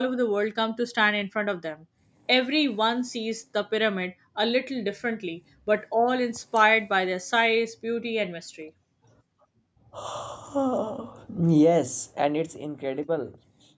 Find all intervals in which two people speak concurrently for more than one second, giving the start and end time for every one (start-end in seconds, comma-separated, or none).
none